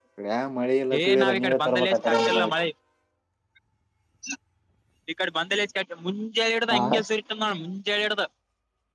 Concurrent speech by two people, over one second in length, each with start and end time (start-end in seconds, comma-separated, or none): 1.0-2.5